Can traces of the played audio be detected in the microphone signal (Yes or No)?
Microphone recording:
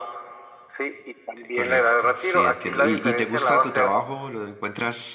Yes